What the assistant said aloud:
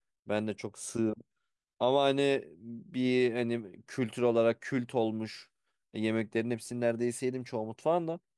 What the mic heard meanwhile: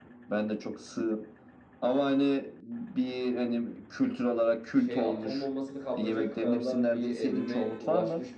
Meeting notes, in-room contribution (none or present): present